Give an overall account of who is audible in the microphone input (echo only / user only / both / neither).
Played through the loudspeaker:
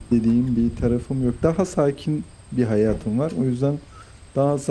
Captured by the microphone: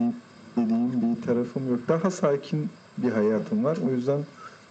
echo only